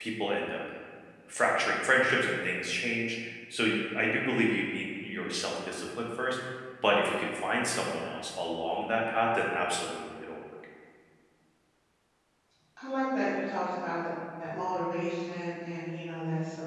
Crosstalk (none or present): none